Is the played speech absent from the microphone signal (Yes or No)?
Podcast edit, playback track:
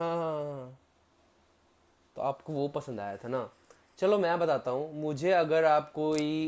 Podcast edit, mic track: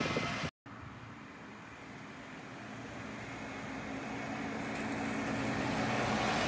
Yes